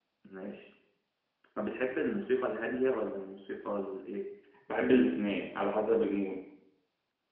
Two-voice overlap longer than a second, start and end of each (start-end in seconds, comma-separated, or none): none